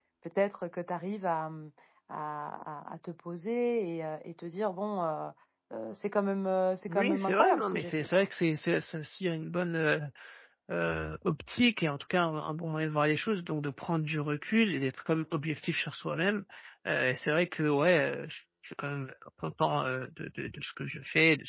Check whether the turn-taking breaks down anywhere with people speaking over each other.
Yes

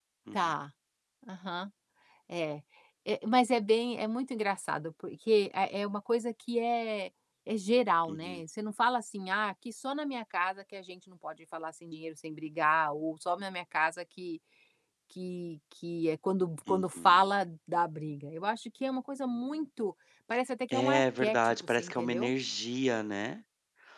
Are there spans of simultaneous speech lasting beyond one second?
Yes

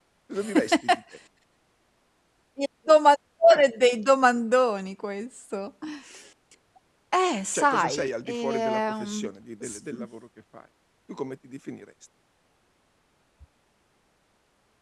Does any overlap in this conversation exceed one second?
Yes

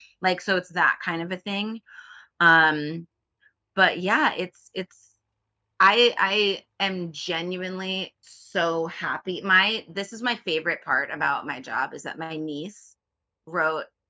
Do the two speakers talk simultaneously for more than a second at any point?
No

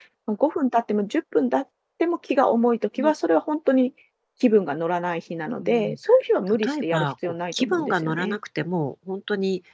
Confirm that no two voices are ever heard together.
No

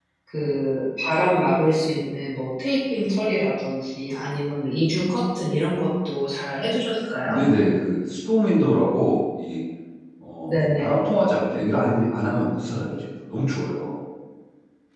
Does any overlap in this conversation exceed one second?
No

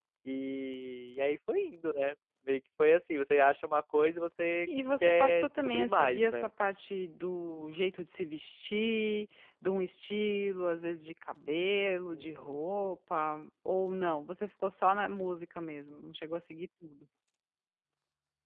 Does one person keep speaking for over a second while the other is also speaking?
Yes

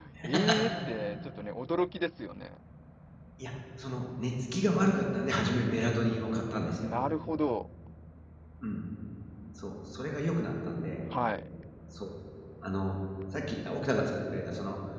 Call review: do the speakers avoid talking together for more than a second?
Yes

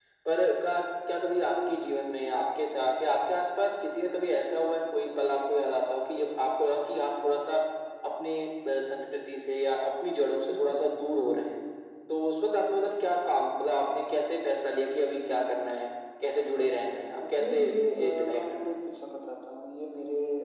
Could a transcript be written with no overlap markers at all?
No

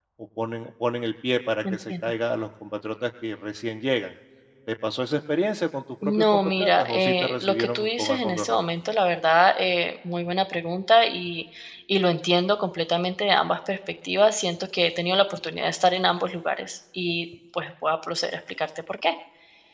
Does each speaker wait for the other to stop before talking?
No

